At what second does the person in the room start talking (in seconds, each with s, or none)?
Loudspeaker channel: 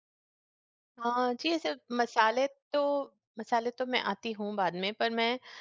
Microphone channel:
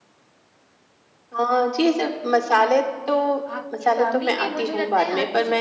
3.5 s